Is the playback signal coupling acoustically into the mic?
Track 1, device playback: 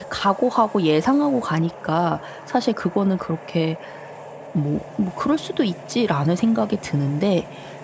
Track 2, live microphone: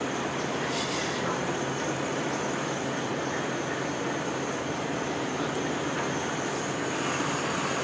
No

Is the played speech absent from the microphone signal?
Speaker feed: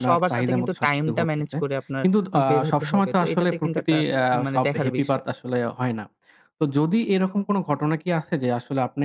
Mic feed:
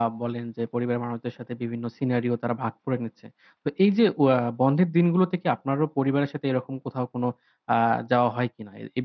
Yes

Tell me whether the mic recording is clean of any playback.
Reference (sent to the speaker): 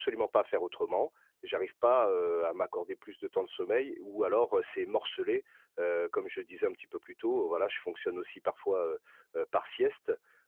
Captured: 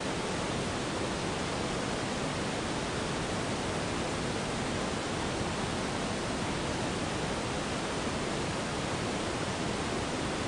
Yes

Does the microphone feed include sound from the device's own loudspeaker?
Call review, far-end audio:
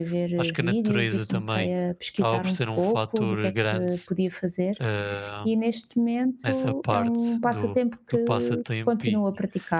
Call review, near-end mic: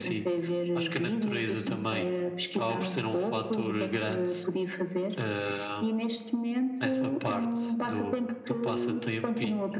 Yes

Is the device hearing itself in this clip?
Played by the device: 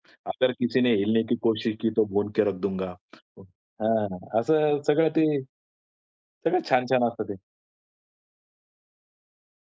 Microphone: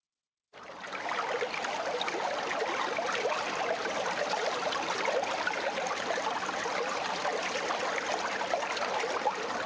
No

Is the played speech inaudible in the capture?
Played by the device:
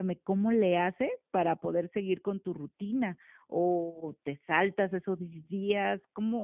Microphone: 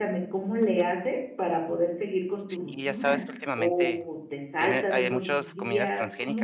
No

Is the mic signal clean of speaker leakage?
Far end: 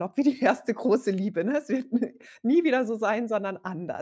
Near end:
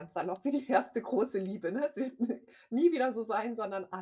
No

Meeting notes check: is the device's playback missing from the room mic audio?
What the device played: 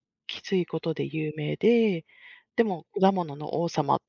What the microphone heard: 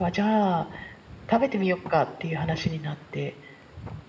Yes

